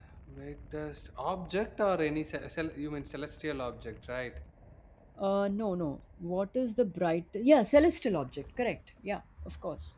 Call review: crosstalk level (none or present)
none